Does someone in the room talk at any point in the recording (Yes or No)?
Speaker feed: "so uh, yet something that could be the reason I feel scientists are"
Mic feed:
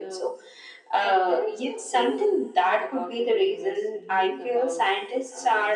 Yes